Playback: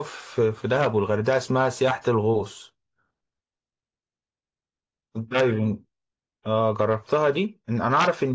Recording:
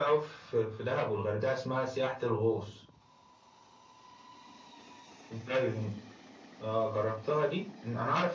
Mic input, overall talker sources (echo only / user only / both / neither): echo only